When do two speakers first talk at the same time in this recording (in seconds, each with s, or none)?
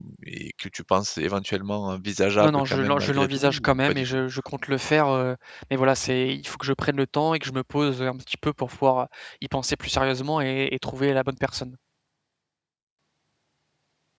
2.4 s